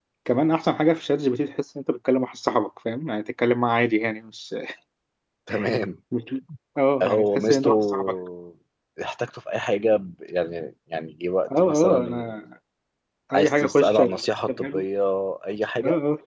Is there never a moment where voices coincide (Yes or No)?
No